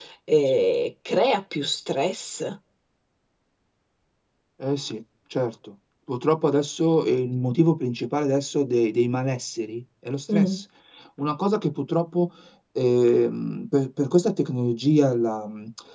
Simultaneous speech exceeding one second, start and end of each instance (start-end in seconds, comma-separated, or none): none